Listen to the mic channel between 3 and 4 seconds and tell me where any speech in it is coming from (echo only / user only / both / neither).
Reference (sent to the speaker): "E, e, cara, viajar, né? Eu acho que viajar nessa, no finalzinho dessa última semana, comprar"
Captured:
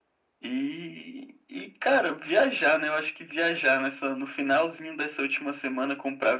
echo only